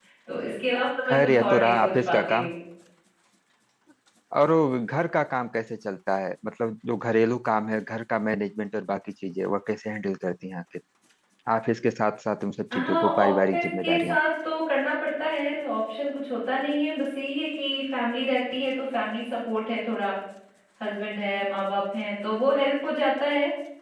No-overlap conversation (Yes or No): No